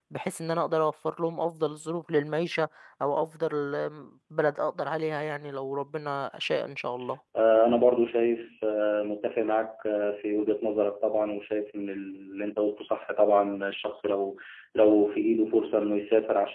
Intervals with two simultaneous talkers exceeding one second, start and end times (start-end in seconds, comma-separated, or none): none